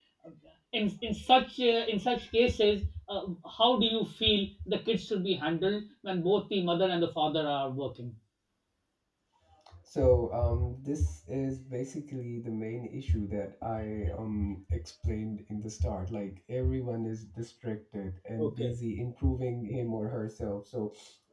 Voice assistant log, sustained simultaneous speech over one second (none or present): none